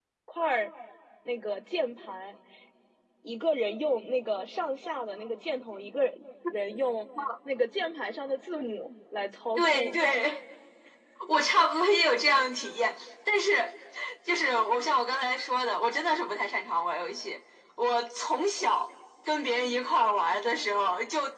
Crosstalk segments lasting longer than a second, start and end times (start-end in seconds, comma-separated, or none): none